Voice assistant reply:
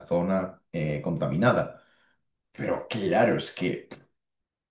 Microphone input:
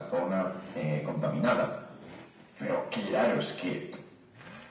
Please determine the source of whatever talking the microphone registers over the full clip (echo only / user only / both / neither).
echo only